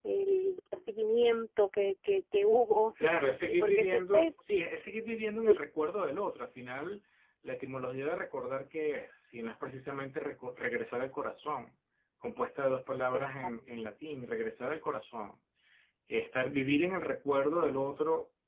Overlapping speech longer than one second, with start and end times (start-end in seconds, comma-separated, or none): 3.0-4.3